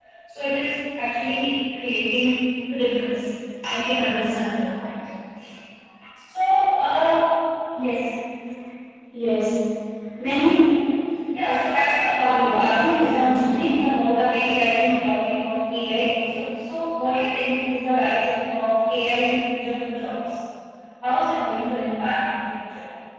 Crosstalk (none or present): present